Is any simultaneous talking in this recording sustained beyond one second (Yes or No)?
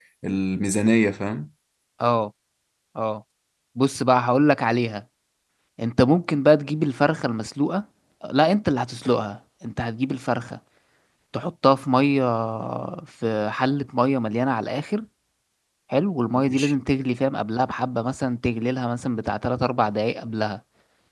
No